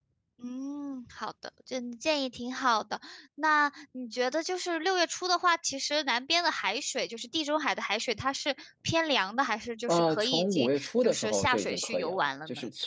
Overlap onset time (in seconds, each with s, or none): 9.9 s